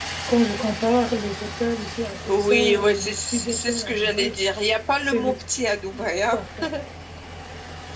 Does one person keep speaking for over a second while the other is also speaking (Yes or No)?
Yes